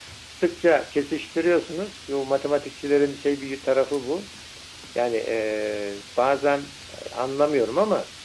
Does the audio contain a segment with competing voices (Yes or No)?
No